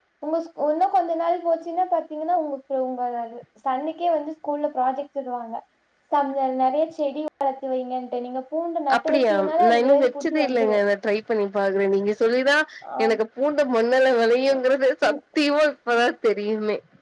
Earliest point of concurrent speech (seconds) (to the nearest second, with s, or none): 9 s